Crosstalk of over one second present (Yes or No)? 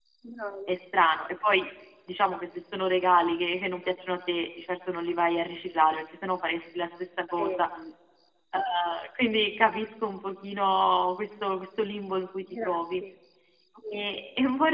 No